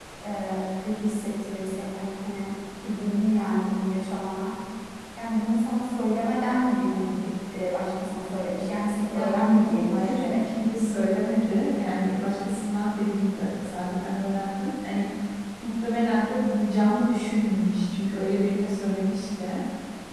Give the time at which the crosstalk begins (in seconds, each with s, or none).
9.1 s